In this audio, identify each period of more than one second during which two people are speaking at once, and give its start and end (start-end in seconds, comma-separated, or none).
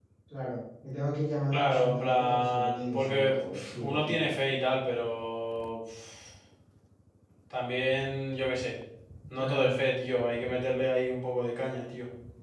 1.5-4.3